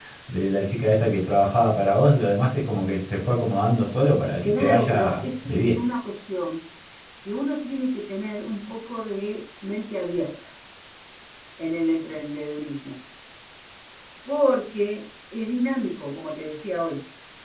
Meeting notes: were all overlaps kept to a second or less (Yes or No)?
No